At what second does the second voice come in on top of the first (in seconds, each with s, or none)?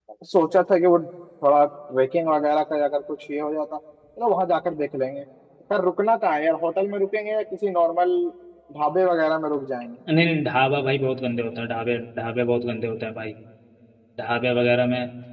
none